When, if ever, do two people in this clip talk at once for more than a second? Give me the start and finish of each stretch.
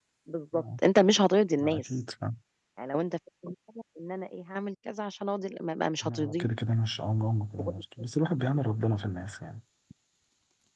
none

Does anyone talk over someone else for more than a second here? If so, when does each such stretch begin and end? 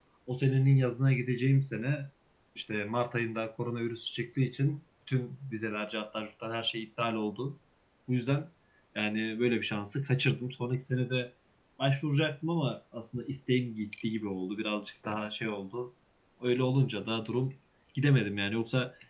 none

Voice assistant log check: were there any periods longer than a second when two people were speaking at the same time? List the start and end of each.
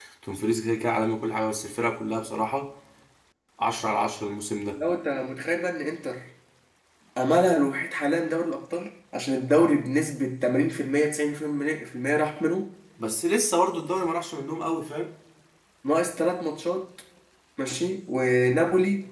none

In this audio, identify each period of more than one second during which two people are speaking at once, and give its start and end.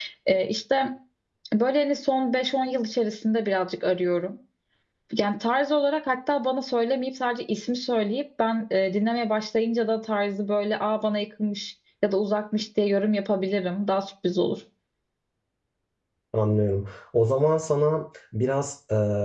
none

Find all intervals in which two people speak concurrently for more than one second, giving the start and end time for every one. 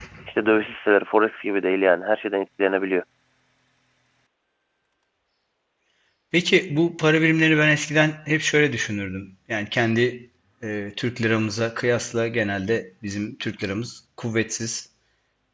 none

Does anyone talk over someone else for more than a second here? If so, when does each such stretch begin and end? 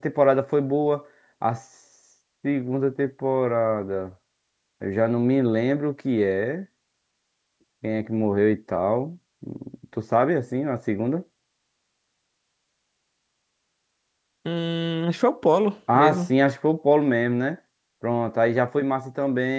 none

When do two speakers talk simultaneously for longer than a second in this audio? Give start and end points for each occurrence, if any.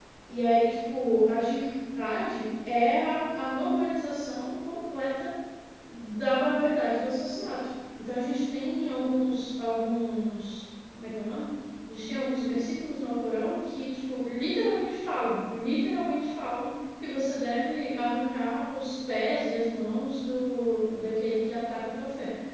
none

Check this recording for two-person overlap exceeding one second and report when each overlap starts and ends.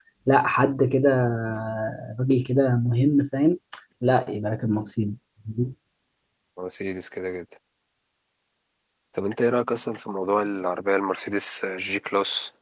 none

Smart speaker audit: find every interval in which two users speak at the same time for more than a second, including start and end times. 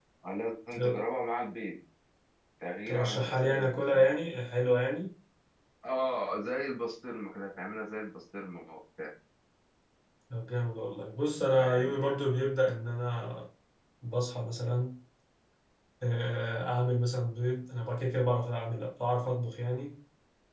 2.9-4.2

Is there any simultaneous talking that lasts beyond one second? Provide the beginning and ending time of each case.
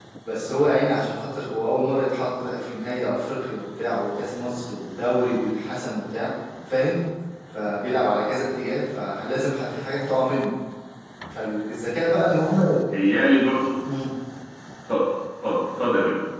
none

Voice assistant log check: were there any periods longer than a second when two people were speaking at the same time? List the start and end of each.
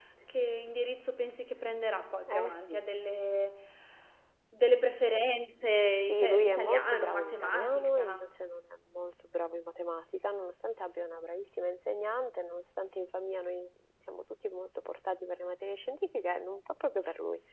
6.0-8.4

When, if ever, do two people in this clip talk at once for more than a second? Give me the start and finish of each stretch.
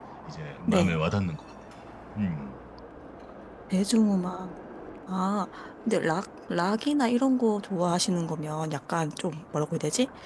none

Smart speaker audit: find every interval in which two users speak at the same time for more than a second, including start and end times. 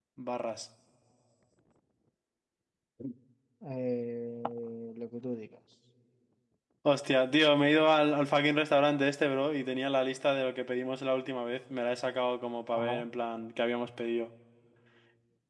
none

